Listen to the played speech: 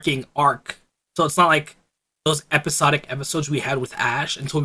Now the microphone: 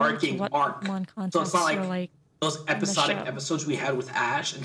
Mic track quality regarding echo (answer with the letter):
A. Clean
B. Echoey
B